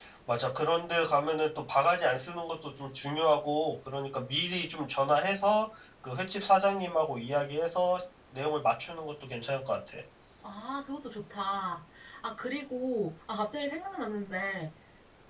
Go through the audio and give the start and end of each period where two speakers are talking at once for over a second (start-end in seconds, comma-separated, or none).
none